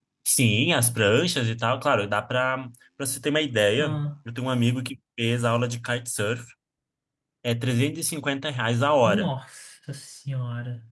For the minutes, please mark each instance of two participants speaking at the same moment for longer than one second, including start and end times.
none

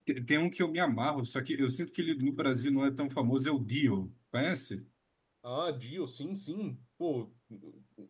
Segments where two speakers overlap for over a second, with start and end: none

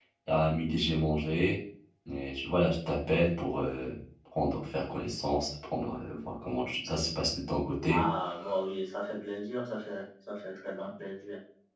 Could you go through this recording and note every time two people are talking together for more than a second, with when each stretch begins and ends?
none

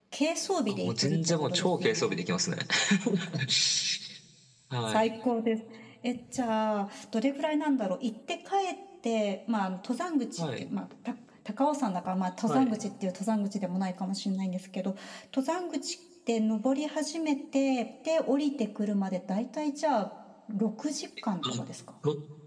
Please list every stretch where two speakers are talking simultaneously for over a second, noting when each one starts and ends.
0.7-2.2

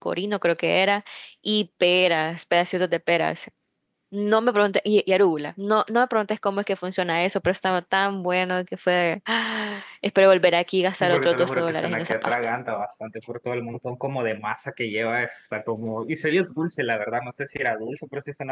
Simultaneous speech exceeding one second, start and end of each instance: 11.0-12.3

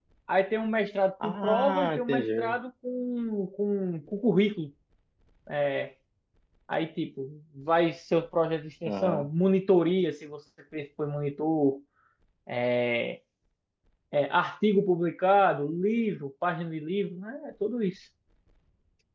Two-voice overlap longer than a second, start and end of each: 1.2-2.6

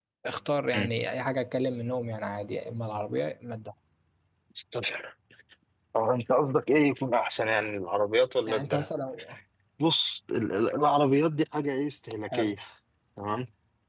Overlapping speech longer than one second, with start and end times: none

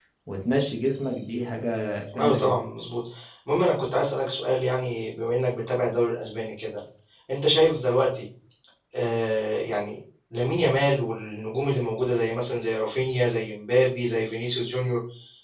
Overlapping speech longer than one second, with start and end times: none

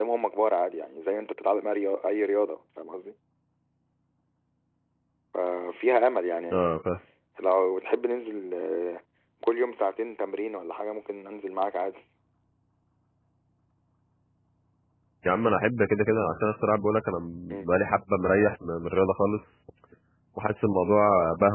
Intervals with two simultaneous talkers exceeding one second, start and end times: none

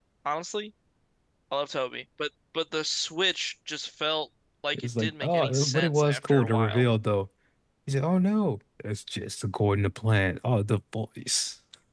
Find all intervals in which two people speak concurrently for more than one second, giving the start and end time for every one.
4.7-6.8

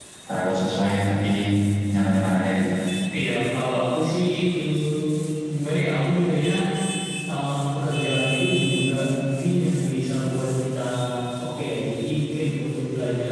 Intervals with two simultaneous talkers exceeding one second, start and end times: none

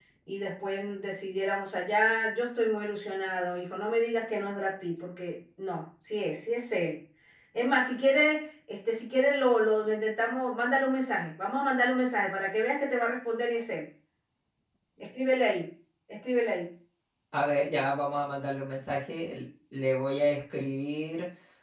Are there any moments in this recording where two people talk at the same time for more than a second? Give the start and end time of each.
none

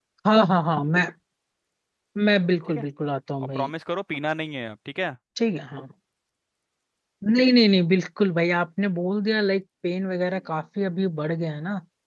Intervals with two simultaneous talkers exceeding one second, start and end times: none

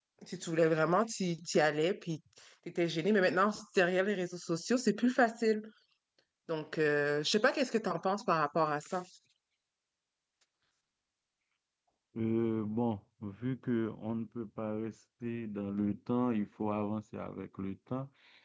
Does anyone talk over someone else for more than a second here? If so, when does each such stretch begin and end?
none

